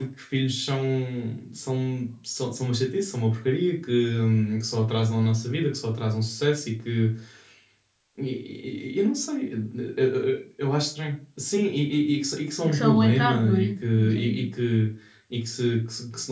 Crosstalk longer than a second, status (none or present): present